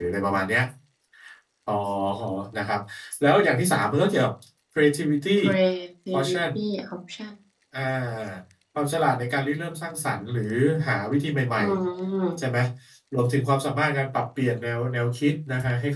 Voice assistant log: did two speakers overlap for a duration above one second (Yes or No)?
No